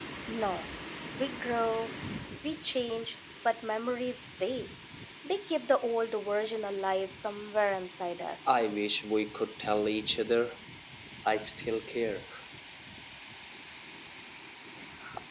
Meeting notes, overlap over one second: none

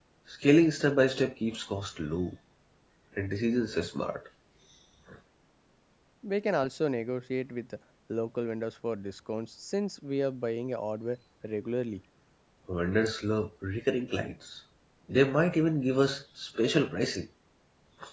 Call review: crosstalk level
none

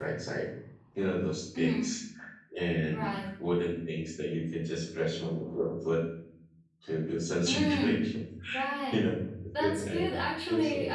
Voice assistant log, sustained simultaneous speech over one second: none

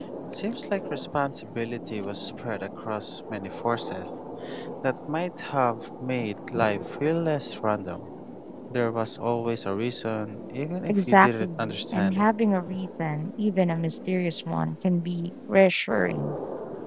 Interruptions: present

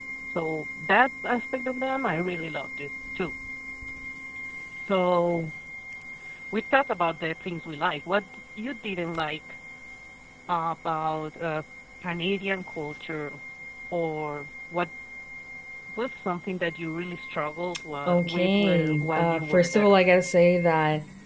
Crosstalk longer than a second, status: present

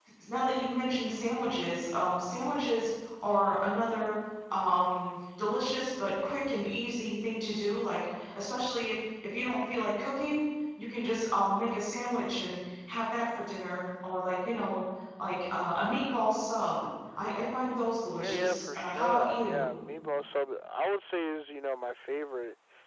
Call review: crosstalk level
present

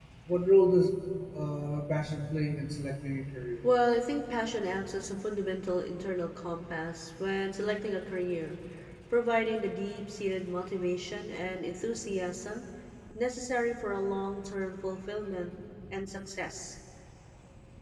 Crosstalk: none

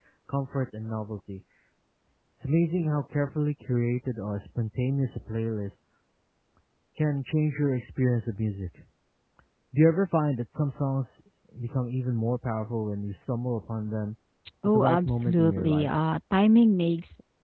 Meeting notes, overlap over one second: present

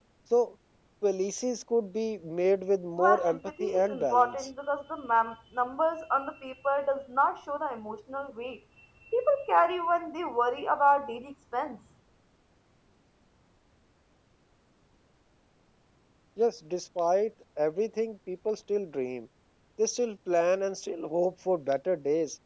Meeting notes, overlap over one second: present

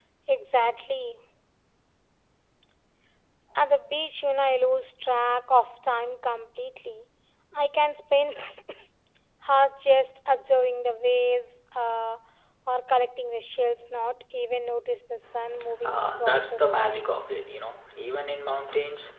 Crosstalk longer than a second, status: present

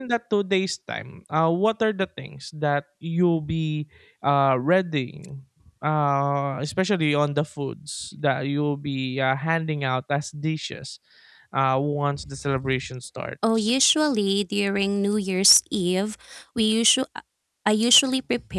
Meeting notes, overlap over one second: none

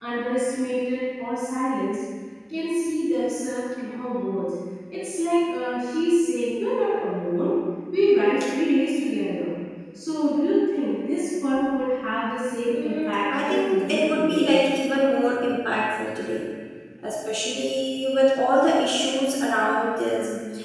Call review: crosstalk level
present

